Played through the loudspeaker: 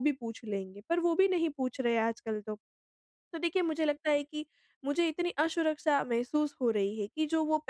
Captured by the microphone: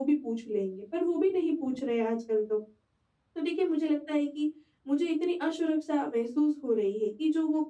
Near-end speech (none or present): none